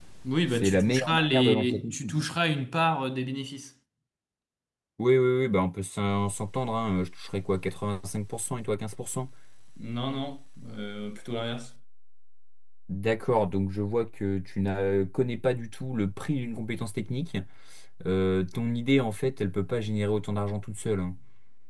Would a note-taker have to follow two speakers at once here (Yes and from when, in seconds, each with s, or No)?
Yes, from 0.5 s